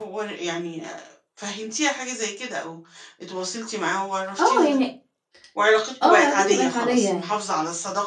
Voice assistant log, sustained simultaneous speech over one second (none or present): present